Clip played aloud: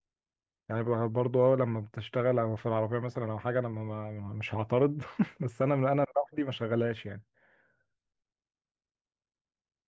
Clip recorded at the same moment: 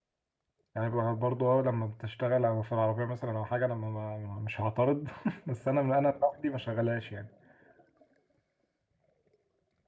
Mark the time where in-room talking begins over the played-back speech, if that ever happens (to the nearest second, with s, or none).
none